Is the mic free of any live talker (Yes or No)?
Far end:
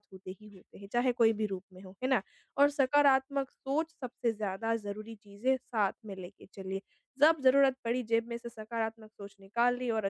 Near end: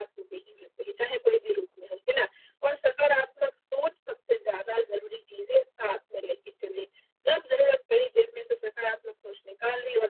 Yes